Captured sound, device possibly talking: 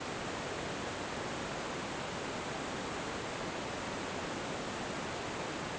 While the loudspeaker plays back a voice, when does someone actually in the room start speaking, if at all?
none

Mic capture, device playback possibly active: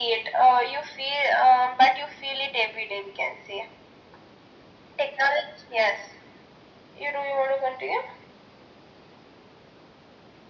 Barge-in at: none

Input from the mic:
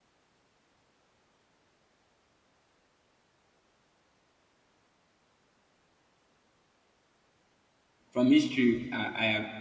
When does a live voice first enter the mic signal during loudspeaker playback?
8.1 s

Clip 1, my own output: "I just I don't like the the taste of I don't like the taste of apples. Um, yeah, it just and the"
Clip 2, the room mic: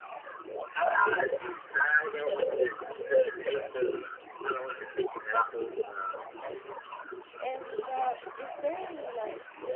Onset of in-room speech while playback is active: 7.4 s

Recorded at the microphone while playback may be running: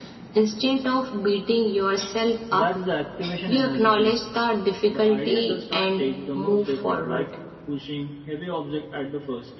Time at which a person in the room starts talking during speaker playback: none

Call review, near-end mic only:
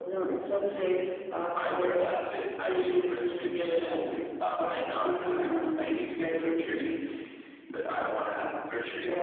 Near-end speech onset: none

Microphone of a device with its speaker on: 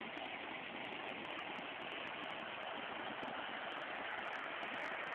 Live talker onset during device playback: none

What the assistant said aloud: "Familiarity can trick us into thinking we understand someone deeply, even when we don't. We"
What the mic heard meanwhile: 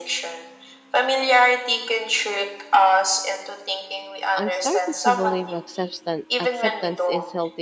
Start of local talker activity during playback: 4.3 s

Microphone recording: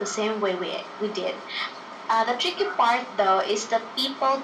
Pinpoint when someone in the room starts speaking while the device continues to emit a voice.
none

